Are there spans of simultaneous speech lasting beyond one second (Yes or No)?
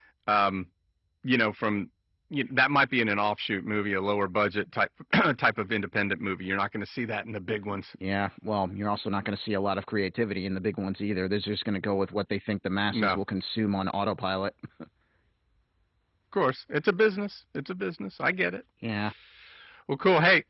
No